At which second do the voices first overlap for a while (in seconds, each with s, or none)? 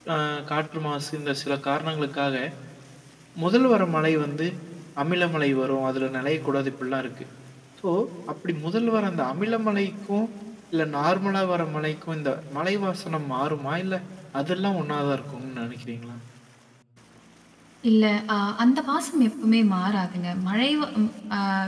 none